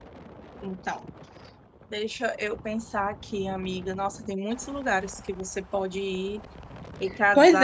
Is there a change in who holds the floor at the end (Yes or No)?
Yes